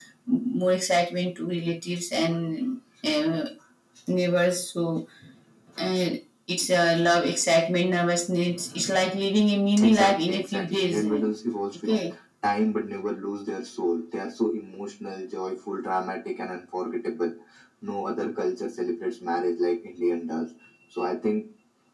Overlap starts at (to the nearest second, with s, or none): 10 s